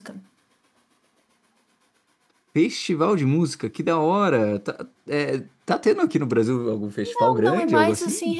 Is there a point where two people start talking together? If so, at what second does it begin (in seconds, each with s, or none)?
7.0 s